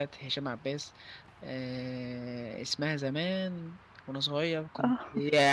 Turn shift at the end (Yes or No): No